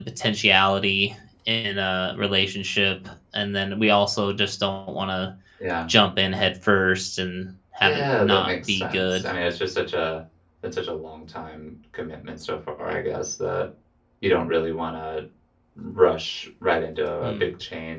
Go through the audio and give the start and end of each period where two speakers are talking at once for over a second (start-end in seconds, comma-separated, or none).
7.8-9.2